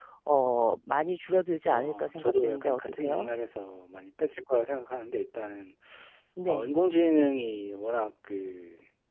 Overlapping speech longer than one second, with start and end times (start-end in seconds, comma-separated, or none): 1.7-3.3